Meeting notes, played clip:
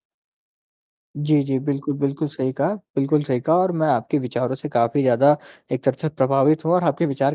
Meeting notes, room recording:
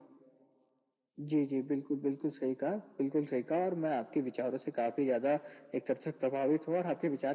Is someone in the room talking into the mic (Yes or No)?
No